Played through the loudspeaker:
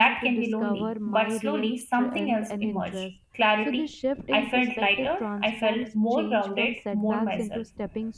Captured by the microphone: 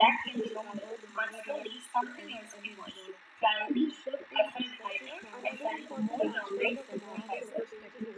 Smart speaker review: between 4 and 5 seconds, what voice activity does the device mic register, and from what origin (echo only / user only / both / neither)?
echo only